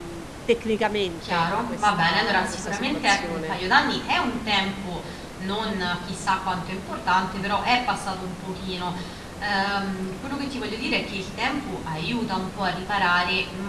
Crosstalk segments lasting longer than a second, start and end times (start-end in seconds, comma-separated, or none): 1.3-3.6